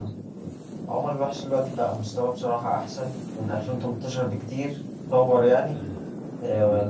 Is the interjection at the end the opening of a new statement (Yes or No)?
No